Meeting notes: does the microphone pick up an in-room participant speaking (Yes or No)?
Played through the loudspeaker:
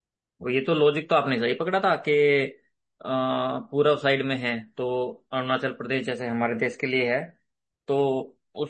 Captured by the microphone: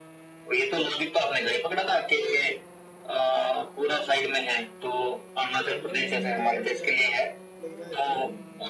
Yes